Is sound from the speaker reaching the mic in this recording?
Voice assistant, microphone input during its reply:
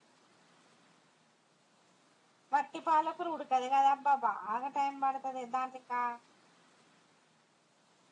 No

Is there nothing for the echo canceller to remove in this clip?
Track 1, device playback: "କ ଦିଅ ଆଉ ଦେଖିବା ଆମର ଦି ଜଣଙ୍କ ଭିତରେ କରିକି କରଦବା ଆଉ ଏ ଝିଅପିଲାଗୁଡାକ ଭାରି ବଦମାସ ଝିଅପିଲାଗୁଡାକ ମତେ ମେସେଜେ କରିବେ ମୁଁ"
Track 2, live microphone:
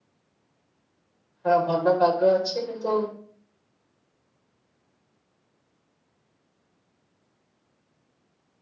Yes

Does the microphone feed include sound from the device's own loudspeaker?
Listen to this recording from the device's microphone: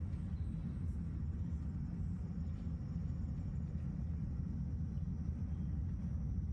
No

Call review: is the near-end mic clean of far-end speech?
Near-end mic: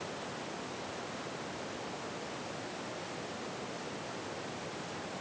Yes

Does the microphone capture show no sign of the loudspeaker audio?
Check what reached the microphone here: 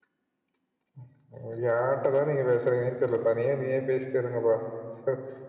Yes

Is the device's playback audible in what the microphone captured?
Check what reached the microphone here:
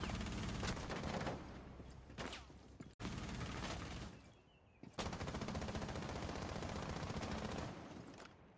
No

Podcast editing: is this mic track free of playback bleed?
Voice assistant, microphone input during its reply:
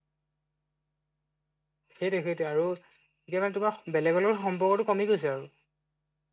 Yes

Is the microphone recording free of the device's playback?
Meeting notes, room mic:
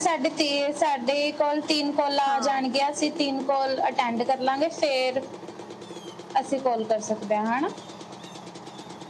No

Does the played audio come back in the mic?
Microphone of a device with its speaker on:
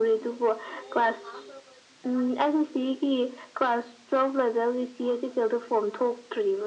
Yes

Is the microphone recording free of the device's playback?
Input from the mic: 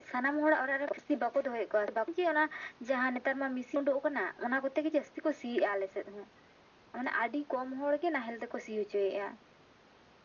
No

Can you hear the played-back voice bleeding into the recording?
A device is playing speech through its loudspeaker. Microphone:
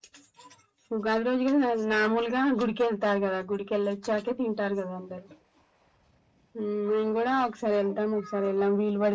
Yes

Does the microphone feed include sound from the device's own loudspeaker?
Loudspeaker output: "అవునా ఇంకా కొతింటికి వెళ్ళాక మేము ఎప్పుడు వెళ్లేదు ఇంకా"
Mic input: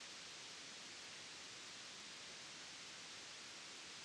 No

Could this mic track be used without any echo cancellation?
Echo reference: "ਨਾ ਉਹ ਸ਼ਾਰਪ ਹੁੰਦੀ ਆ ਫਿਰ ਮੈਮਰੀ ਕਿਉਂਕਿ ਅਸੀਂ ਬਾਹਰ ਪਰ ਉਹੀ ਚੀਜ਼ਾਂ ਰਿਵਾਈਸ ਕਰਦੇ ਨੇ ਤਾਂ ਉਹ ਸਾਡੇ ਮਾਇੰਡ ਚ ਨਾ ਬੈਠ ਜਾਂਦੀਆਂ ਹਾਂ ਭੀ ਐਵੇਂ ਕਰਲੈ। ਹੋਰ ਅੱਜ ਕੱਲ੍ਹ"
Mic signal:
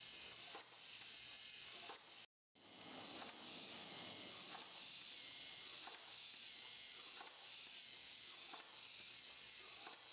Yes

